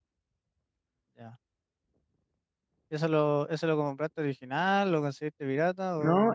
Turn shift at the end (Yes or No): Yes